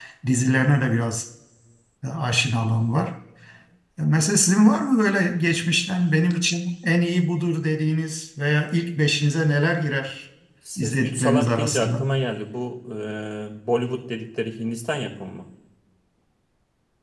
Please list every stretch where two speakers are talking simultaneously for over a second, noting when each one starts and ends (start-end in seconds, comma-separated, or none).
10.8-12.1